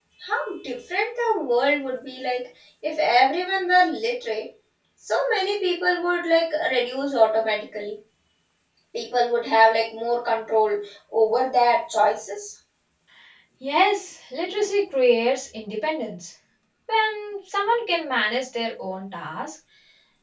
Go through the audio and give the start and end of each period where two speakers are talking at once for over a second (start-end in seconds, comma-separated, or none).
none